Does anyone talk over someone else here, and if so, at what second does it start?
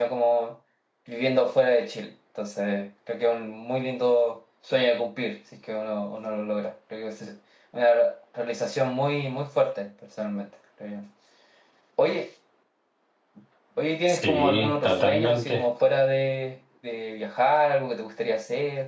14.1 s

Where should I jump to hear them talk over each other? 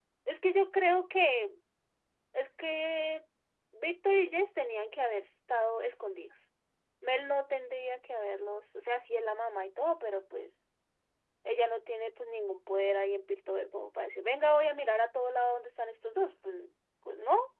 none

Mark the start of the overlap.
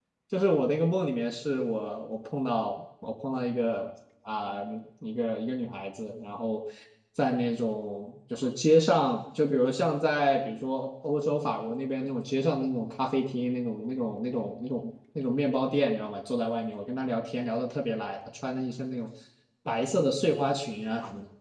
none

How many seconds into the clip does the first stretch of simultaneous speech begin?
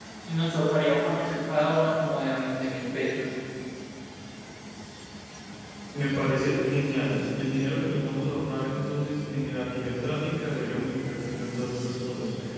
none

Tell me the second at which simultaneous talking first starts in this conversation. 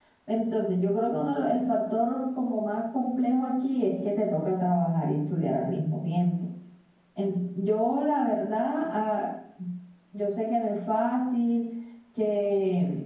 none

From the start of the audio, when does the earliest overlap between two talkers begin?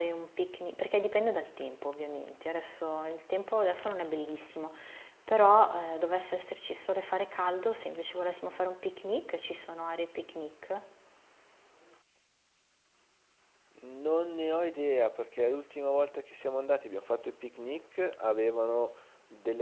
none

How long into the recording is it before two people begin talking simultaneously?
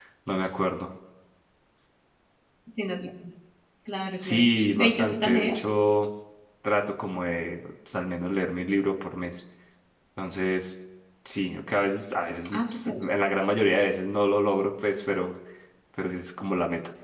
4.2 s

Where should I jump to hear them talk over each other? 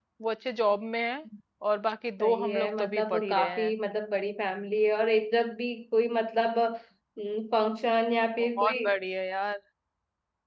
2.2 s

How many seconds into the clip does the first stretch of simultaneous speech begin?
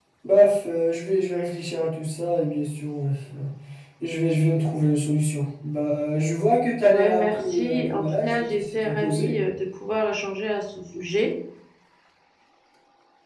6.8 s

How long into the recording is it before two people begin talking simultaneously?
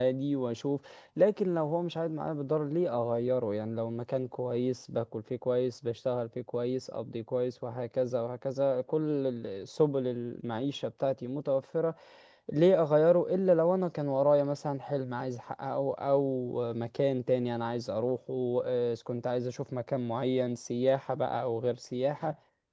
none

